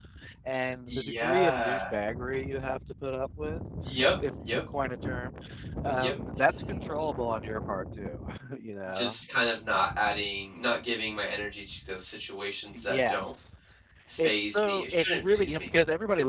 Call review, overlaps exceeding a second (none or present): present